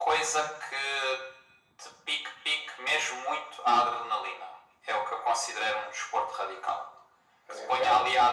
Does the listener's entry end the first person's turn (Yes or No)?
No